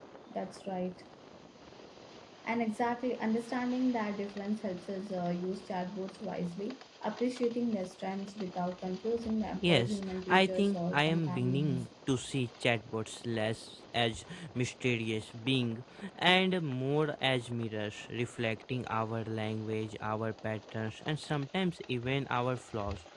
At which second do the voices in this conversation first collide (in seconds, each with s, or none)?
9.7 s